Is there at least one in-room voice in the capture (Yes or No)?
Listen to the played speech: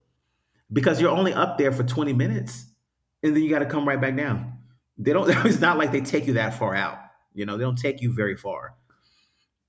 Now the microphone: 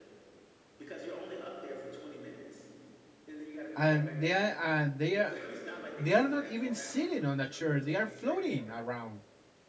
Yes